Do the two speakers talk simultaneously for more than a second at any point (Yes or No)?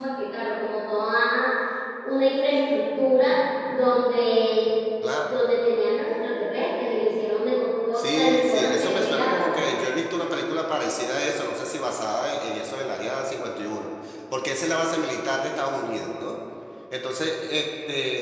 Yes